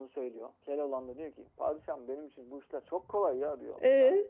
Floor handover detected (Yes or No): No